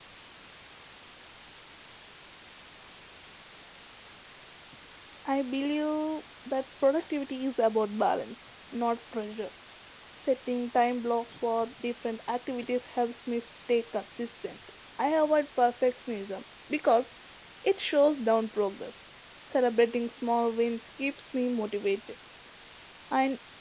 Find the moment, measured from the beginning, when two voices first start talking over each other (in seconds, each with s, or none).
none